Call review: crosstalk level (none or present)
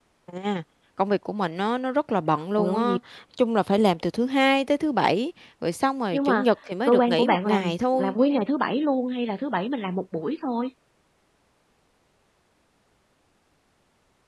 present